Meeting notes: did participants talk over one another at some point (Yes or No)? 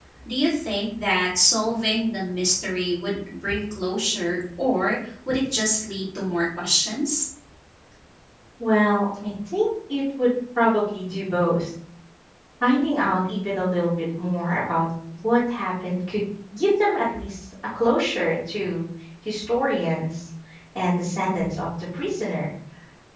No